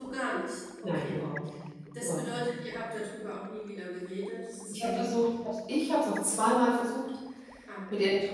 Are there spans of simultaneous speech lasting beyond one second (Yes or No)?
No